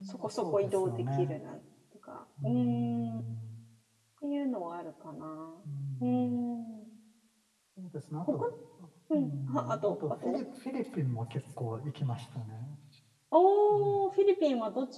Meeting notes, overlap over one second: present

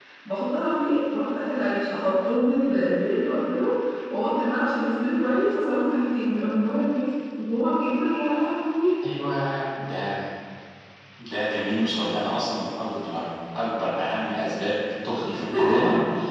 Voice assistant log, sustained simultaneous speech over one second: none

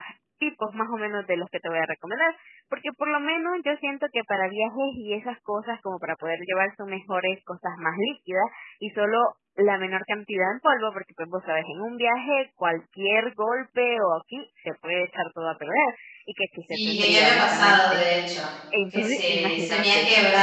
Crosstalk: present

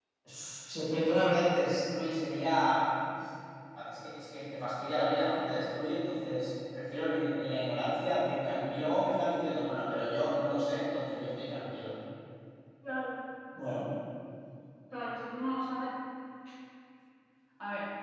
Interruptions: none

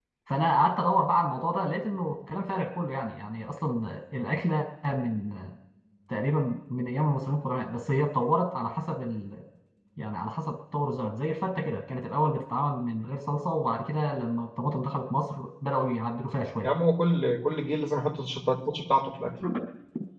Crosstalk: none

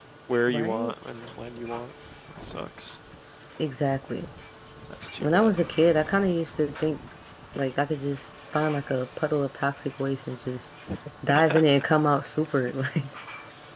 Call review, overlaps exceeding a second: none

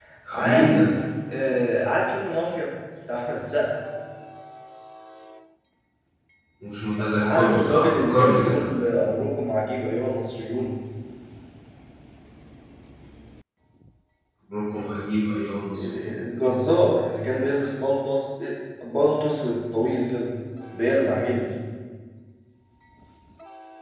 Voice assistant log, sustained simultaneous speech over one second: present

